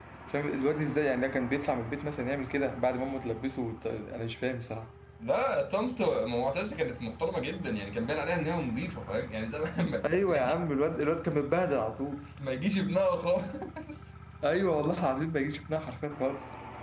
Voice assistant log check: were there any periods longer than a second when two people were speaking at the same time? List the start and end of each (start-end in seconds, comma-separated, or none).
none